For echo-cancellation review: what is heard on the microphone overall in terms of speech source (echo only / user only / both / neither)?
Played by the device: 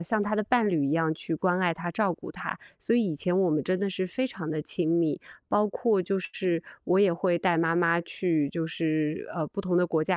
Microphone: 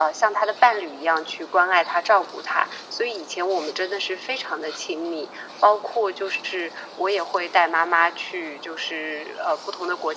echo only